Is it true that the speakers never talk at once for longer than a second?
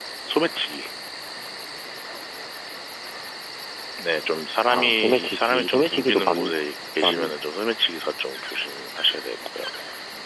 No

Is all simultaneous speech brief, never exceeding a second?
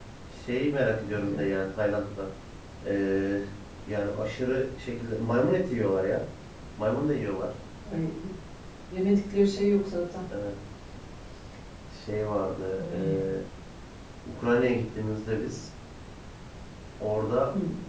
Yes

